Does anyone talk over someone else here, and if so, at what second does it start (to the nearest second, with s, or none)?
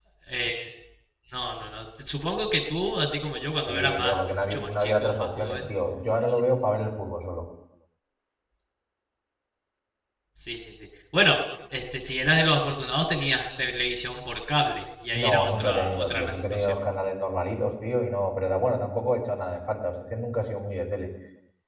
4 s